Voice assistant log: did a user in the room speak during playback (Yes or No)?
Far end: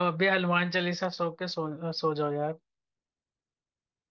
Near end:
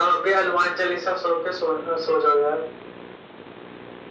No